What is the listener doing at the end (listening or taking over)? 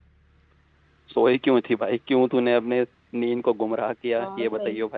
taking over